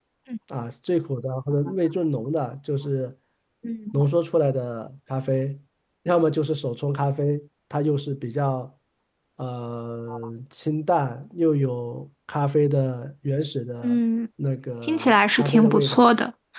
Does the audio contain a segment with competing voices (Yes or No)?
Yes